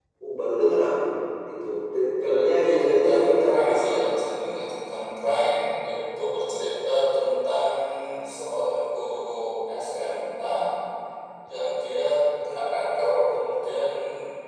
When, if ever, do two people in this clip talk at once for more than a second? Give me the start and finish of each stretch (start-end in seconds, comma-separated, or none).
2.3-4.0